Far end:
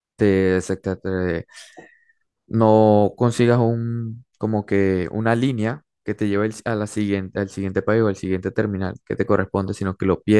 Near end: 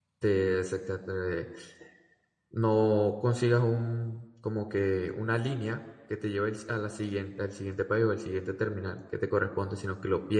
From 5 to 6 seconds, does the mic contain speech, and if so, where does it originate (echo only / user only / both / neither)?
echo only